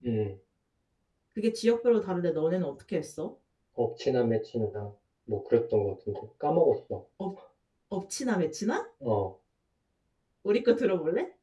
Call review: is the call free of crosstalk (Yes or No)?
Yes